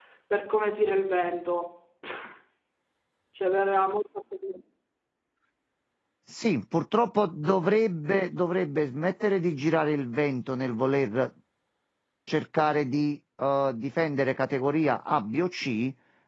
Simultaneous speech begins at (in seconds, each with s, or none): none